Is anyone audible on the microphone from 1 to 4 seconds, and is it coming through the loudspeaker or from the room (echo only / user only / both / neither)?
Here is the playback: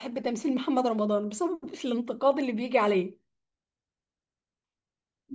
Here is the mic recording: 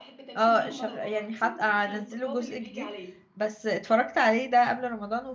both